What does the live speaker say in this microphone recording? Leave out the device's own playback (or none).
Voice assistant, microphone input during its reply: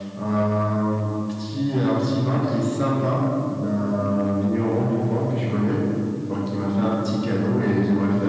none